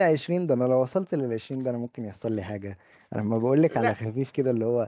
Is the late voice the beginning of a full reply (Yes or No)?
No